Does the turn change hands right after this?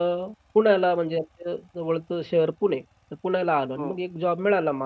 No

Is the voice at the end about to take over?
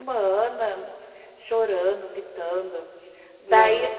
No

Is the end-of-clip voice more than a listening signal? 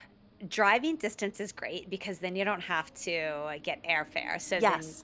No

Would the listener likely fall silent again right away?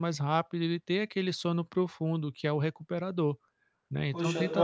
No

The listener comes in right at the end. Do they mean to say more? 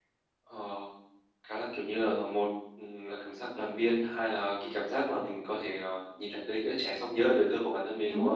Yes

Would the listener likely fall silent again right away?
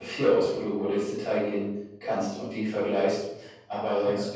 Yes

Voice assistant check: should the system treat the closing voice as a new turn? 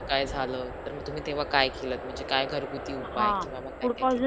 Yes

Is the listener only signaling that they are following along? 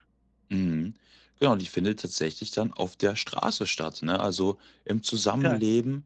Yes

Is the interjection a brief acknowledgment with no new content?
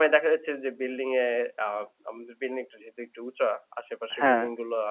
Yes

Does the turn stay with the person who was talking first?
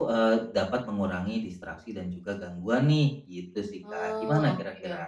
No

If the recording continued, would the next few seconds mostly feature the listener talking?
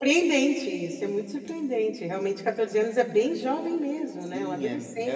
Yes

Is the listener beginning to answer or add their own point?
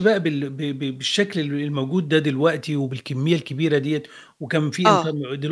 No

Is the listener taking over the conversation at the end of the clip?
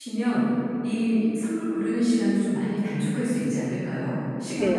Yes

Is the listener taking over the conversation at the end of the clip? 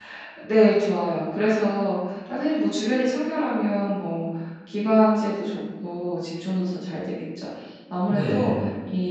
No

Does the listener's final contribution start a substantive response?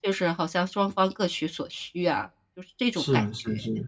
Yes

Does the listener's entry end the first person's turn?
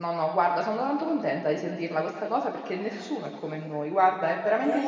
Yes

